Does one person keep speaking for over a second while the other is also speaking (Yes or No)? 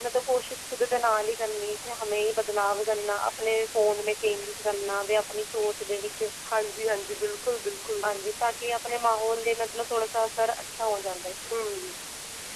No